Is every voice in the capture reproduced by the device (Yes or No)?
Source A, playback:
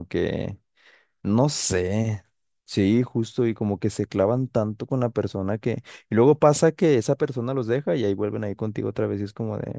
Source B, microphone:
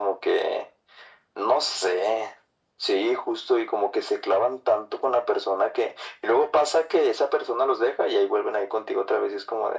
Yes